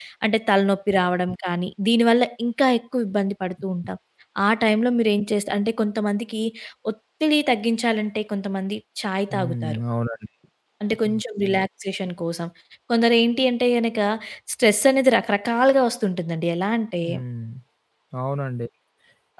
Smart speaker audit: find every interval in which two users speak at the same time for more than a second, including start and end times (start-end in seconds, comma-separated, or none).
none